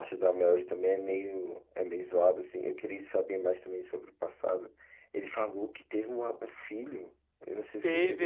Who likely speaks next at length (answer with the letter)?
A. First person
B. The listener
B